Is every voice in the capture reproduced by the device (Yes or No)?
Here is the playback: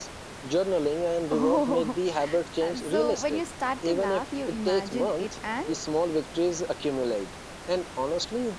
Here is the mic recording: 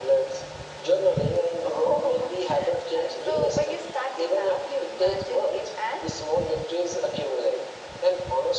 Yes